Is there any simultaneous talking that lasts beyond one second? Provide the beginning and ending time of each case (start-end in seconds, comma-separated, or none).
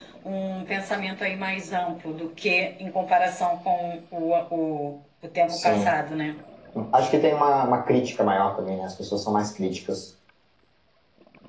none